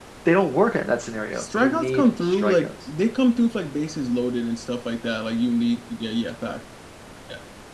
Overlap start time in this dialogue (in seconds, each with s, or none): 1.4 s